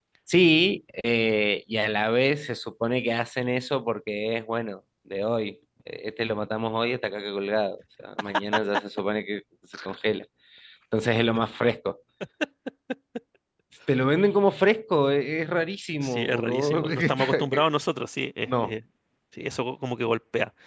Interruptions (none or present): present